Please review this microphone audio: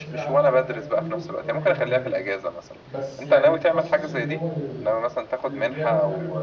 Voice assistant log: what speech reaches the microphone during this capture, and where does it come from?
both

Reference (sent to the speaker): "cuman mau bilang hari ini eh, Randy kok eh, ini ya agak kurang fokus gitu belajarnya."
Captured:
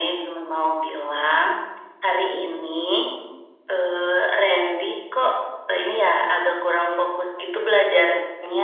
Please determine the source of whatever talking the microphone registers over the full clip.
echo only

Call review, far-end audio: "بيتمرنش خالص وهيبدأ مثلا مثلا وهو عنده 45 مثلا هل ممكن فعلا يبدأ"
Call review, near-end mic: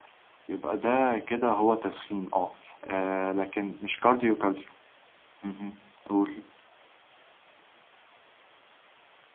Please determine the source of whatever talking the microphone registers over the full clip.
user only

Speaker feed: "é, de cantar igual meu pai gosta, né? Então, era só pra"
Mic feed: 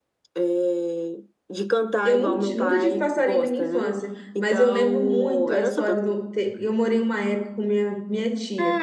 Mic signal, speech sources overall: both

